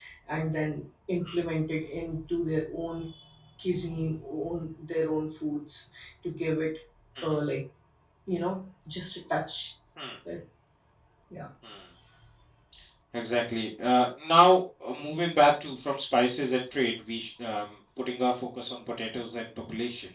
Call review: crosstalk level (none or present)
none